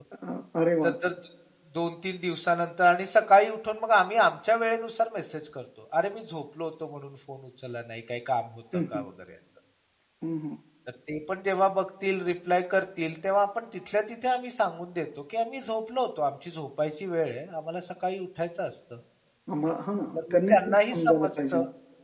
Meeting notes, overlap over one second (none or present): present